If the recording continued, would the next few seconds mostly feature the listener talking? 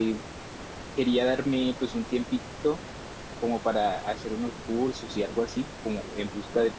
No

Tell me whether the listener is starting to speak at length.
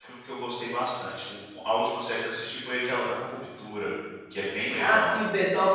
Yes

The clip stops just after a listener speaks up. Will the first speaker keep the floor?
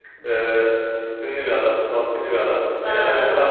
Yes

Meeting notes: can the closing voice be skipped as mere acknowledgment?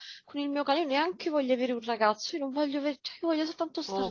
No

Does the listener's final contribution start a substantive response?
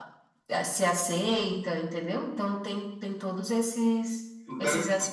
Yes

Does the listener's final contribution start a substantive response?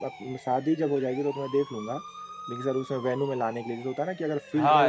Yes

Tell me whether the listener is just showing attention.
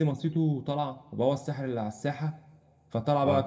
Yes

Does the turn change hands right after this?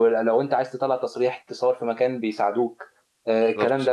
No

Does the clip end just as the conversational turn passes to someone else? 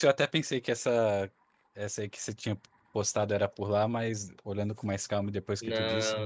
Yes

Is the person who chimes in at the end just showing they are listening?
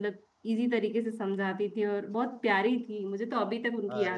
No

